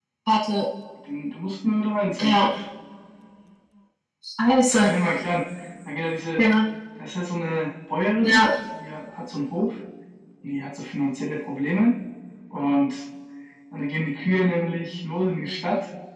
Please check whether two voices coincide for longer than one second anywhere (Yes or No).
No